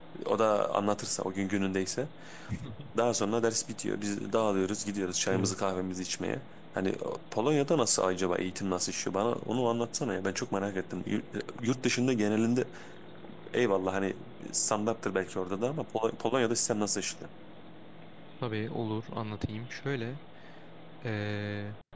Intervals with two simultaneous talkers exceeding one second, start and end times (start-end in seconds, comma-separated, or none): none